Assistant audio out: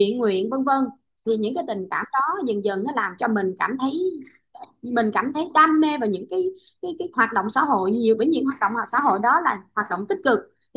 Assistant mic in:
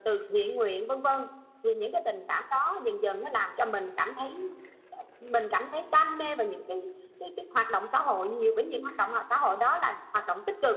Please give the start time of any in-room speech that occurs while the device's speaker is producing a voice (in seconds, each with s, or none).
none